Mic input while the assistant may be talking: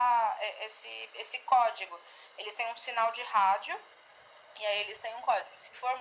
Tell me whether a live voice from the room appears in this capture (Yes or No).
No